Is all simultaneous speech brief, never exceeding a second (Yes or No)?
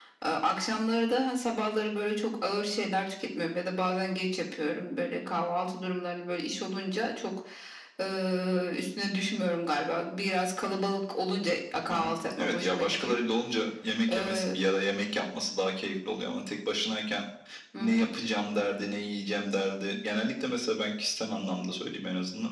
No